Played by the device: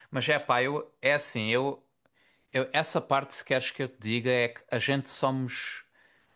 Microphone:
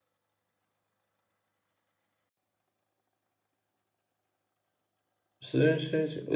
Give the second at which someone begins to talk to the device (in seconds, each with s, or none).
5.4 s